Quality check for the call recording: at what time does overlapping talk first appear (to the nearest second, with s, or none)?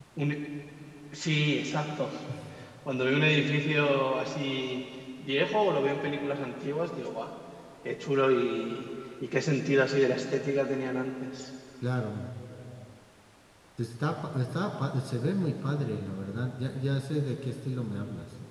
none